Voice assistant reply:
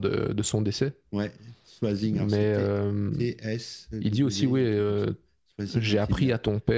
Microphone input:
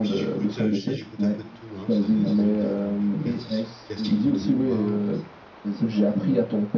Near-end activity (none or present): present